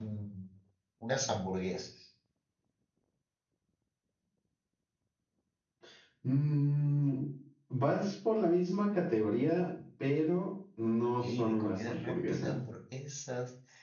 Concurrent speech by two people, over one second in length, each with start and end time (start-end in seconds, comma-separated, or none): 11.2-12.6